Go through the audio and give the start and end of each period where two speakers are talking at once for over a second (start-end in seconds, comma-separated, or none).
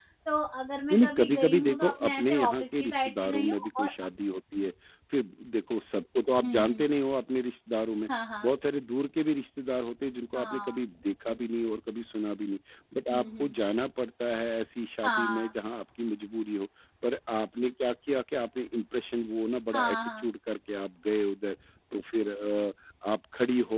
0.9-3.9